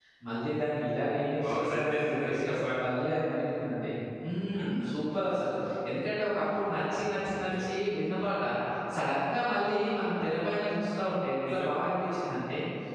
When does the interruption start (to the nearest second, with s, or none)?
1 s